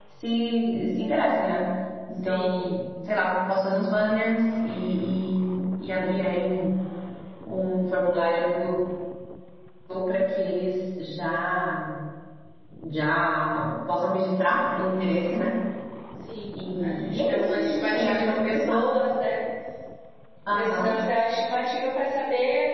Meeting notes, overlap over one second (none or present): present